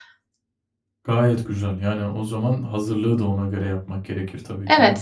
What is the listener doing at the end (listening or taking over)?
taking over